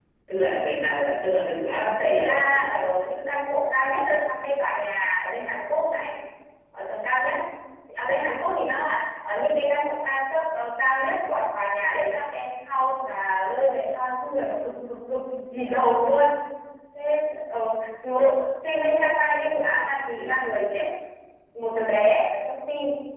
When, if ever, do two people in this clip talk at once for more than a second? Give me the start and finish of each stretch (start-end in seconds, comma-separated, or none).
1.7-3.3